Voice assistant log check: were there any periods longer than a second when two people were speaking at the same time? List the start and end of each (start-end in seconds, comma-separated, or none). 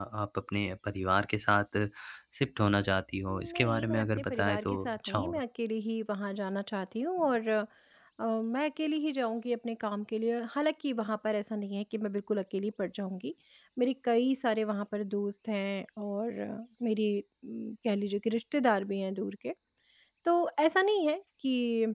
3.3-5.4